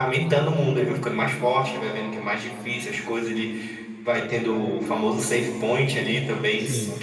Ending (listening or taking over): listening